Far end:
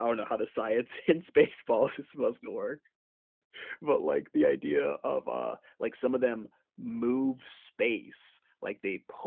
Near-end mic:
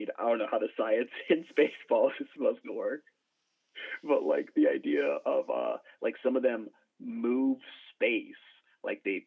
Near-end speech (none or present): none